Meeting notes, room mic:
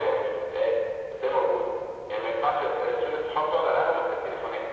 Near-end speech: none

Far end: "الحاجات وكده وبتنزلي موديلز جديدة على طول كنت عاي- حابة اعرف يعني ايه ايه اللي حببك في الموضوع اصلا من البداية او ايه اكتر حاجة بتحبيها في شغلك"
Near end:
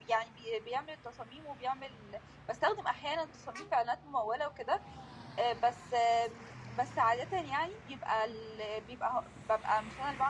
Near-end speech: present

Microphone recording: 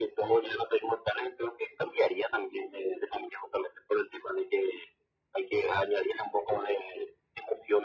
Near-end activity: none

